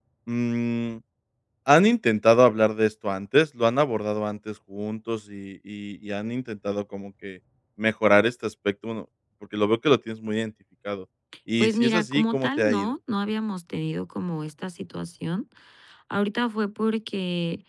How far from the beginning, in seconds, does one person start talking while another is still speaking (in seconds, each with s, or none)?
11.6 s